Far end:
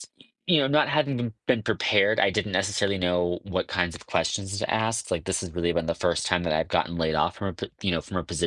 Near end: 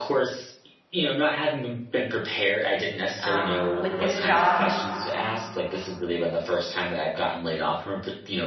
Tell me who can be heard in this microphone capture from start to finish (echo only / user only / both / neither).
both